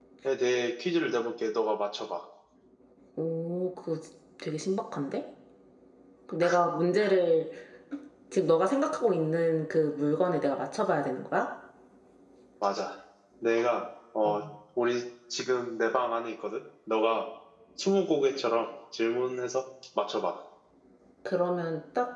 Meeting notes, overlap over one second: none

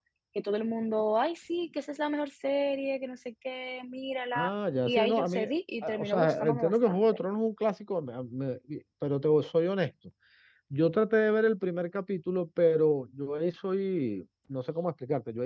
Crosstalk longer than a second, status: present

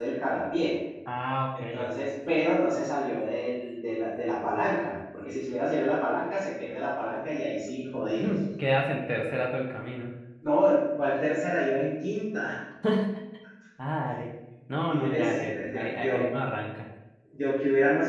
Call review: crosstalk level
present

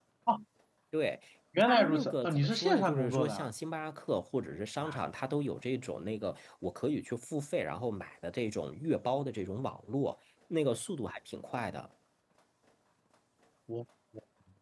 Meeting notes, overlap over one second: present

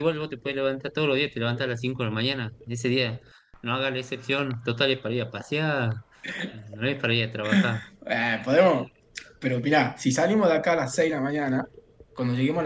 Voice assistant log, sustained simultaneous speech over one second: none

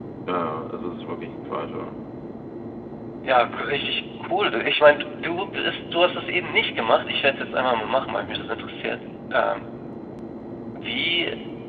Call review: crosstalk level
none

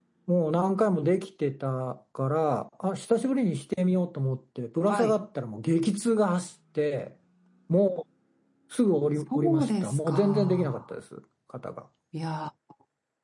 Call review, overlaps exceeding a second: present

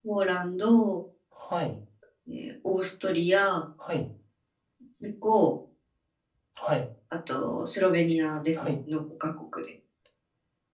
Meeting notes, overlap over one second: none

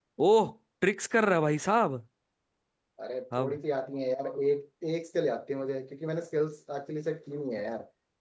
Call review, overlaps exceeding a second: none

